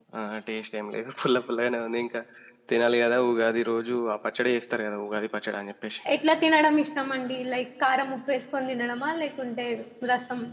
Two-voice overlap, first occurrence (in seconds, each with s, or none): none